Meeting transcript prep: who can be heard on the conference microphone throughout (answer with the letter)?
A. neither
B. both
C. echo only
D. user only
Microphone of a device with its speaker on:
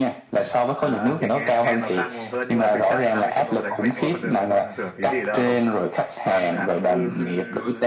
B